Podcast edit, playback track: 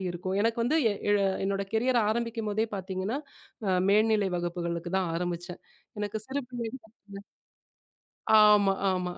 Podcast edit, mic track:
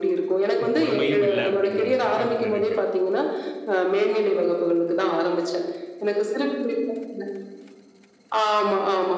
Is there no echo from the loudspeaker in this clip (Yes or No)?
No